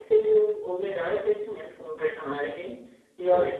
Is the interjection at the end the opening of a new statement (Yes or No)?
No